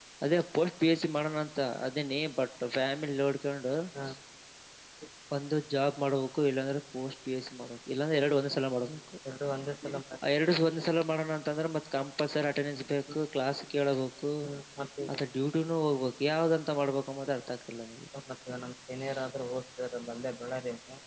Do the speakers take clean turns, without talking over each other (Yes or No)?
Yes